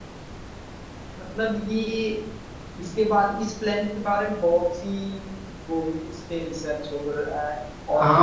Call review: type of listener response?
taking over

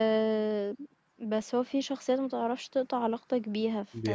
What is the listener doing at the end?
listening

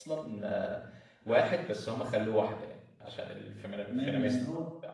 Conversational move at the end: taking over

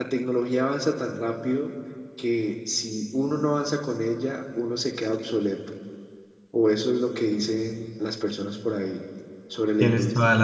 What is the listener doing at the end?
taking over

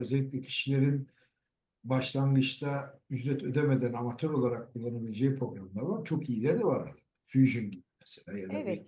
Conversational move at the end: taking over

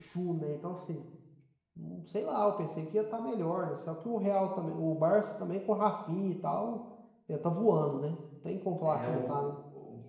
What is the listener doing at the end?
taking over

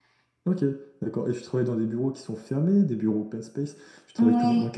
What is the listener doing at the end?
listening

